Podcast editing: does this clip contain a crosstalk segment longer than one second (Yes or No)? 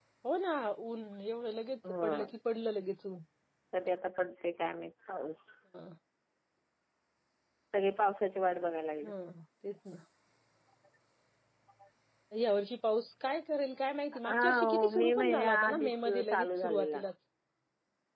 Yes